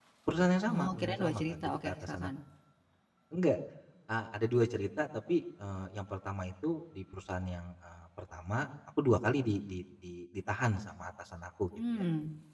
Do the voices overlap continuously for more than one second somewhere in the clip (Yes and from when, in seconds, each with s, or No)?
Yes, from 0.7 s